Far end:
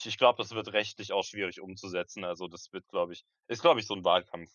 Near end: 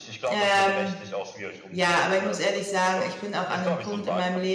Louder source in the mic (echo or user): user